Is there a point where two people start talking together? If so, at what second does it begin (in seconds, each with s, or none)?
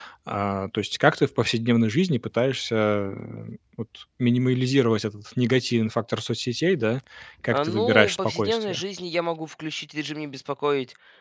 7.5 s